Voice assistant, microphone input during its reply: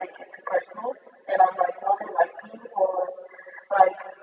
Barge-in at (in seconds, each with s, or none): none